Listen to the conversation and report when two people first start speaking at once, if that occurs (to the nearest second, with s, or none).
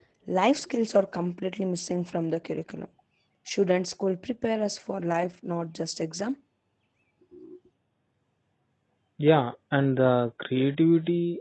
none